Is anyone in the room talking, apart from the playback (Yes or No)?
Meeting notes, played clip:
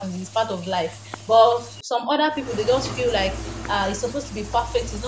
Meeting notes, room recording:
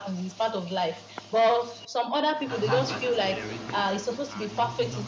Yes